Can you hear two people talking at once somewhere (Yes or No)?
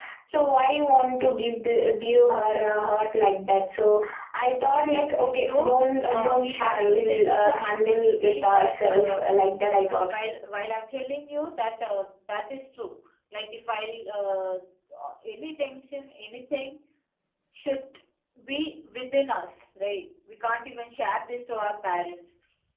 Yes